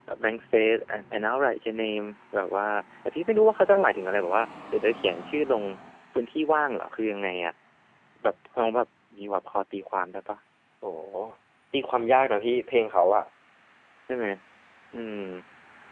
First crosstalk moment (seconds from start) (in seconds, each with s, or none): none